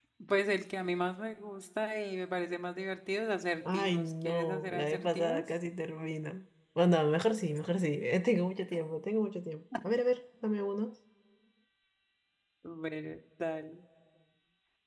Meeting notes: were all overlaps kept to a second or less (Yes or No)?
No